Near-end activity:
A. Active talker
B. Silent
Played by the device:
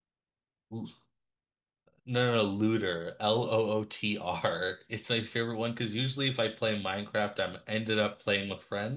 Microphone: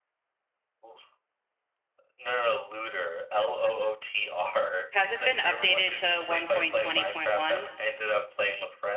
A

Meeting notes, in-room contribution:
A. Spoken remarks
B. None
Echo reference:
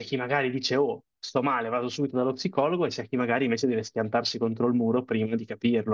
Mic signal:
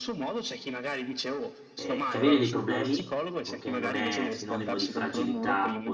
A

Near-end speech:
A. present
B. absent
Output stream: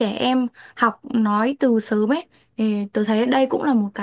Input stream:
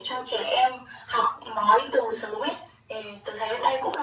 B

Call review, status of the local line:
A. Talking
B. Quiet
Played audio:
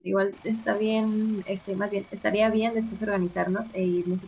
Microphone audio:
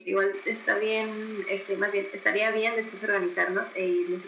B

